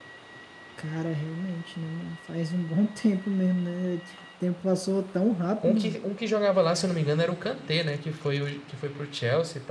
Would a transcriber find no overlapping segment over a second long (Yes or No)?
Yes